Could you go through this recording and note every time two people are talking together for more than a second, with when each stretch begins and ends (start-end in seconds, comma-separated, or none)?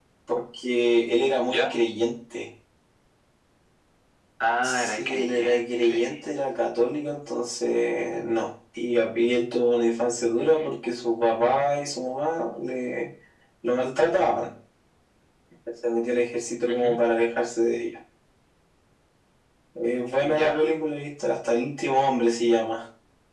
4.6-6.1